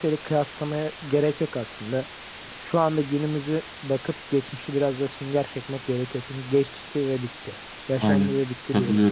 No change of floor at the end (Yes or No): No